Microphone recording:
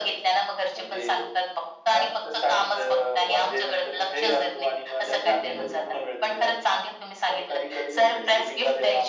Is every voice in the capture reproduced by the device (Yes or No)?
No